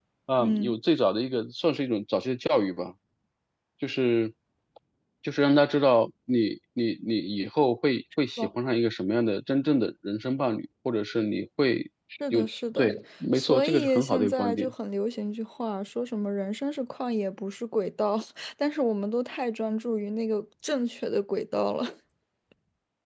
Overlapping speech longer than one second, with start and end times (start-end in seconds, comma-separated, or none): 13.3-14.7